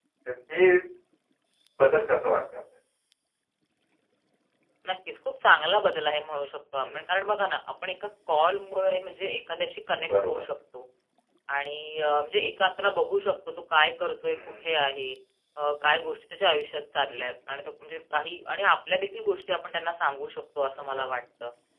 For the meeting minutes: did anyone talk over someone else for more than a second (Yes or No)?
No